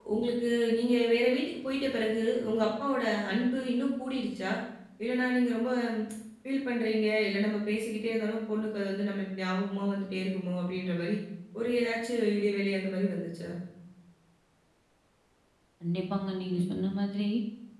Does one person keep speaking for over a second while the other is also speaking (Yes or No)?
No